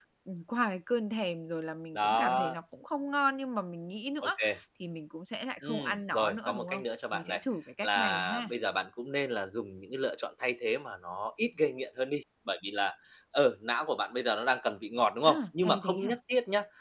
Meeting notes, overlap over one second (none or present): present